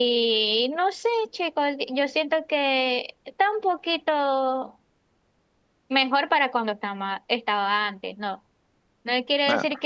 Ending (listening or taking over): listening